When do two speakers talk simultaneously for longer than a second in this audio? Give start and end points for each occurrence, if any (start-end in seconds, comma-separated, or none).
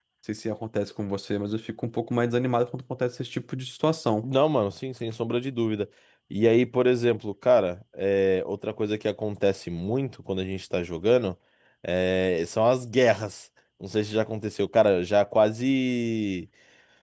none